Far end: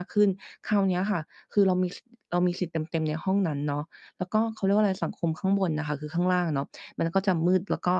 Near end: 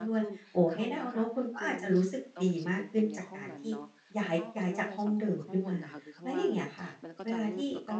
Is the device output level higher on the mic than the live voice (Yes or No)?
No